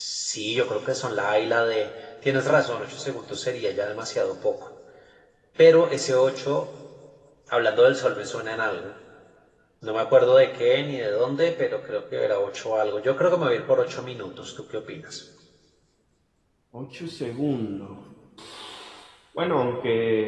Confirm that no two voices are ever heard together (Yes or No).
Yes